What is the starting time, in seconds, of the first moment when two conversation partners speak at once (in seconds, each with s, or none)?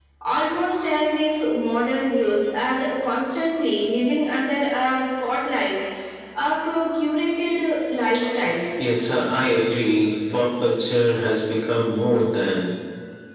none